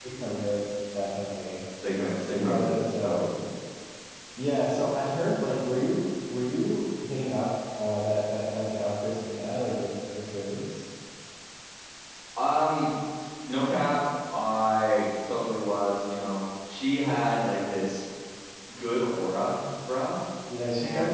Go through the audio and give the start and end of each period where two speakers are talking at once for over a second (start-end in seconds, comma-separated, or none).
2.0-3.2